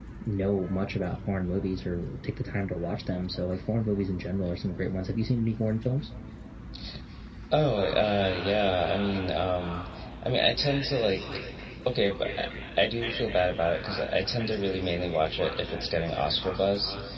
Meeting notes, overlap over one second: none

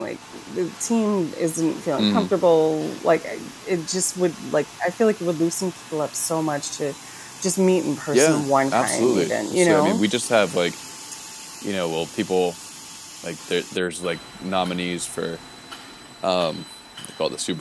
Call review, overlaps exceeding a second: present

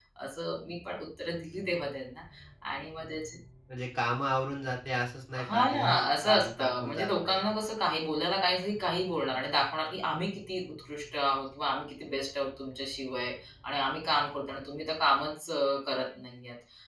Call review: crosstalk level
present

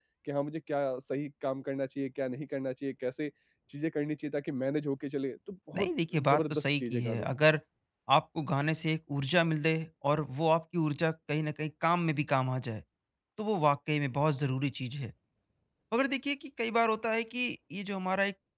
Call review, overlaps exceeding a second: present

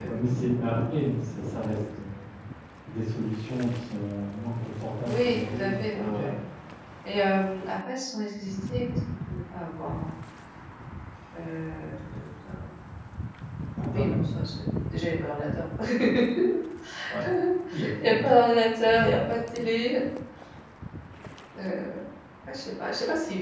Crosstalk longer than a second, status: present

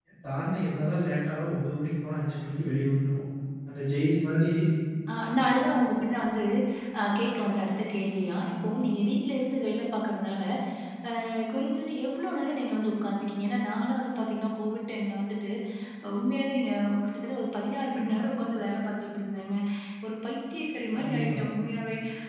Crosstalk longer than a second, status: none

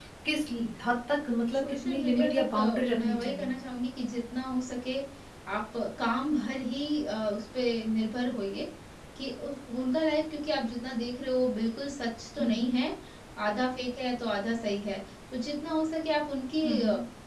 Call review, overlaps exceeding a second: present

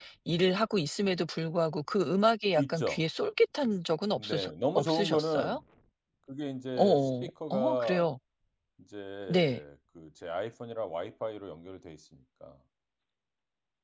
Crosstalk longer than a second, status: present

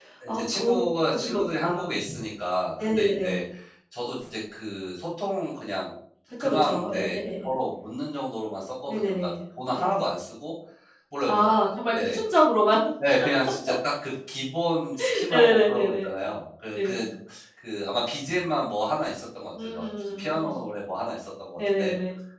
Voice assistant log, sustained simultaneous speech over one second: present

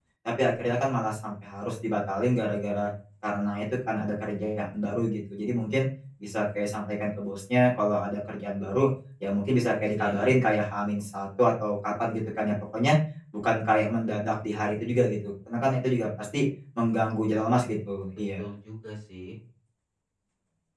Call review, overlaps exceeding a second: none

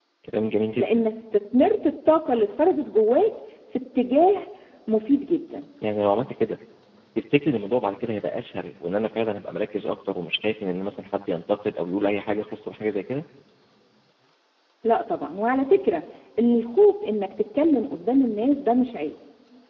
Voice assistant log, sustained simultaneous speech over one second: none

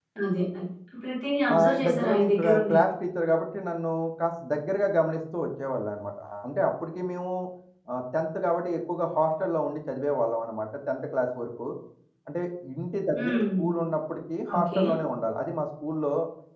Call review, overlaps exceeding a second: present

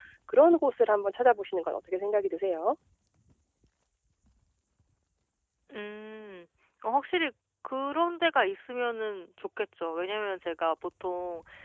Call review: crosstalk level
none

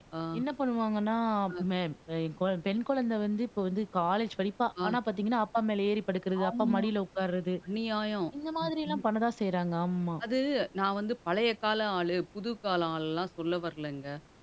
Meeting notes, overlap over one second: none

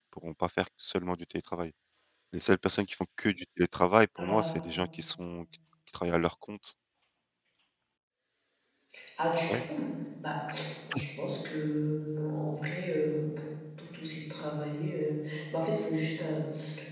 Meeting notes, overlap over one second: none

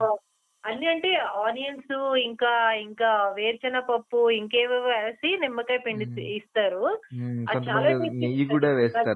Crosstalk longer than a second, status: present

